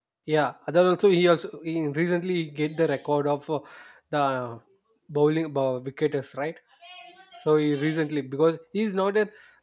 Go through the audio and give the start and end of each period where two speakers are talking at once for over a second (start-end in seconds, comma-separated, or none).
none